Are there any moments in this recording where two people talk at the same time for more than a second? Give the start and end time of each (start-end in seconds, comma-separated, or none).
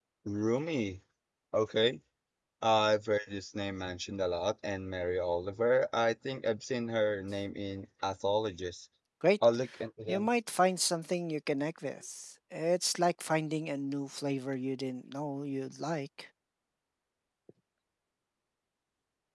none